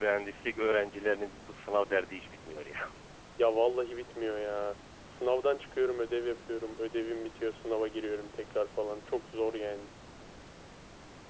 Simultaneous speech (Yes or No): No